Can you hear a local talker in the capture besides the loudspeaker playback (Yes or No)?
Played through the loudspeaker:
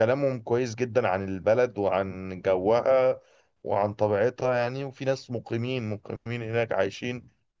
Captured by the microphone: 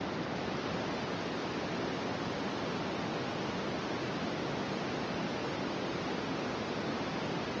No